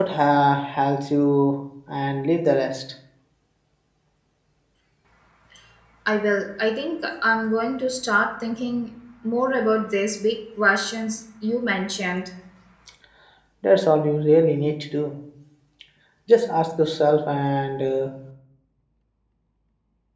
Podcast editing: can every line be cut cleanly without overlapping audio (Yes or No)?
Yes